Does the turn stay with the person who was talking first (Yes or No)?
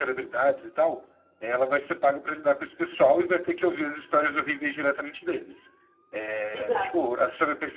Yes